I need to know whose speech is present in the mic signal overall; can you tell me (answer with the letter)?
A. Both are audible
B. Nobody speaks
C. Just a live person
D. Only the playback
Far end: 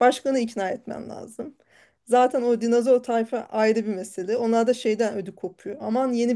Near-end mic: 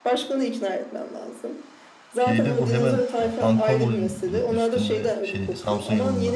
A